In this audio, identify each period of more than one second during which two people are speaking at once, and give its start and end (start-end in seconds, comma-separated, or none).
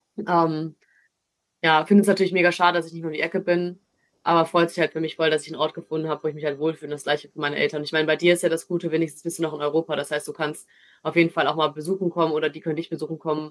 none